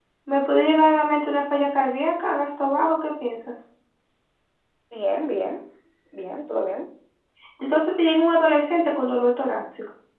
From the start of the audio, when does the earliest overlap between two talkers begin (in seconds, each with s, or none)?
none